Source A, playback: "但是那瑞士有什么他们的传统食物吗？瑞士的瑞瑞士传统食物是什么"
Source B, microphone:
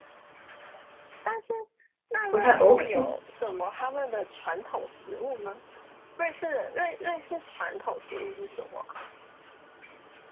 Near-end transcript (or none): 不太 OK，